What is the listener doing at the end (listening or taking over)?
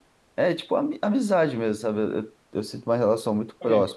listening